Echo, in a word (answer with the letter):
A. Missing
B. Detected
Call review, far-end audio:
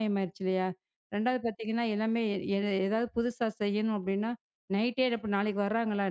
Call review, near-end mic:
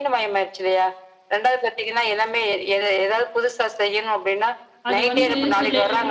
B